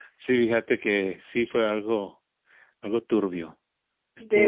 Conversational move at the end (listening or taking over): listening